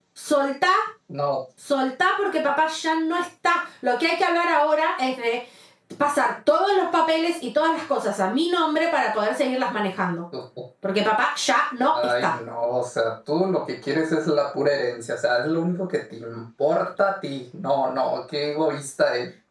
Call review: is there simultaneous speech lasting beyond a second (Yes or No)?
No